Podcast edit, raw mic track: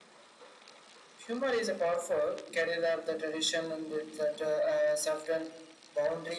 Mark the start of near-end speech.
none

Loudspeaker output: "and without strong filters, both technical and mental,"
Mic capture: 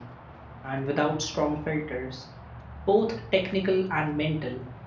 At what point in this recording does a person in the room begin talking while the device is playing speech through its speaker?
none

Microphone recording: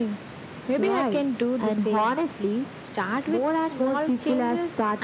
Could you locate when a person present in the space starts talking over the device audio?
none

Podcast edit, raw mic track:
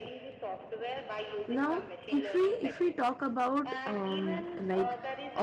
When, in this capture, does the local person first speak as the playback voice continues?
1 s

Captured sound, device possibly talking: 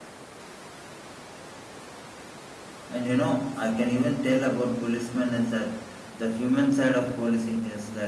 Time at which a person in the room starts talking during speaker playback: 3 s

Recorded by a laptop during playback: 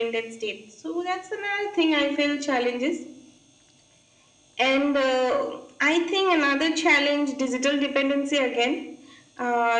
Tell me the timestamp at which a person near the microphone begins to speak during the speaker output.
none

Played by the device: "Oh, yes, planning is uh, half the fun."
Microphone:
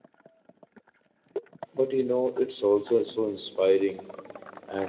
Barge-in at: 2 s

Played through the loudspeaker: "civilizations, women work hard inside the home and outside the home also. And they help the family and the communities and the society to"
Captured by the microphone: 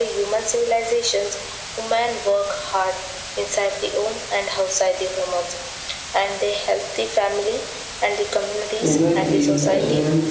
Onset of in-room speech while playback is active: 9 s

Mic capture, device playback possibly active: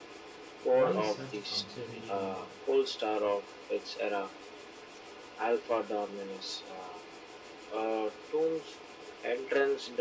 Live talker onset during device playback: 1 s

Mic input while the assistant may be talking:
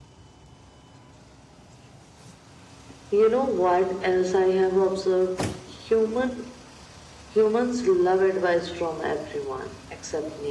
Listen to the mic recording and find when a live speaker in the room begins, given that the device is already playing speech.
none

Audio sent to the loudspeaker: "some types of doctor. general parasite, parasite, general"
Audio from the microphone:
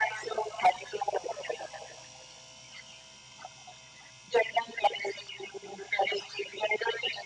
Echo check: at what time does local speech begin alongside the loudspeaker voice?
none

